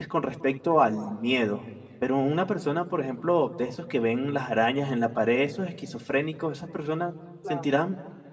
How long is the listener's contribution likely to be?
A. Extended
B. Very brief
B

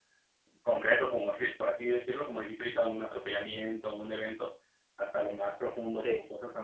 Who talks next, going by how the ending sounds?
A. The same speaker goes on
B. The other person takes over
A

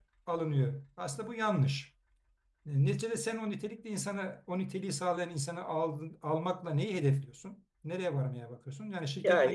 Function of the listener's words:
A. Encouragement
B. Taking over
B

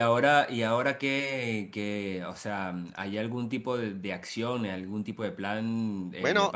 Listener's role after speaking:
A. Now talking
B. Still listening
B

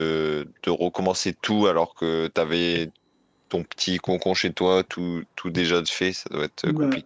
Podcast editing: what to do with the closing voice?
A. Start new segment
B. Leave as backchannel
A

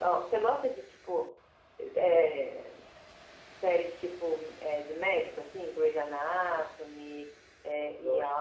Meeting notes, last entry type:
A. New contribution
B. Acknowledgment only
A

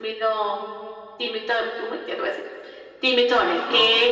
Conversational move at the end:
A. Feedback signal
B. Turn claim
B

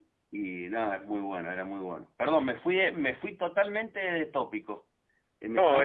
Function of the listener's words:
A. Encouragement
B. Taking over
B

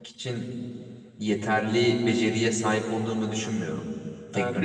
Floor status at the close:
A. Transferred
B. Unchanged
A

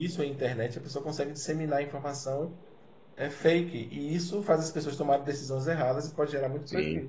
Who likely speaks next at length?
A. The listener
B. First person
A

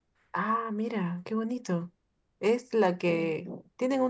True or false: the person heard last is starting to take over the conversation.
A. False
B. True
A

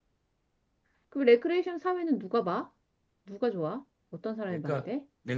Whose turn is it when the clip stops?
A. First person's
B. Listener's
B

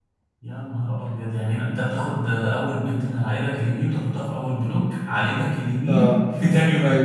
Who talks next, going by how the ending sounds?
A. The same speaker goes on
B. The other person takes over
B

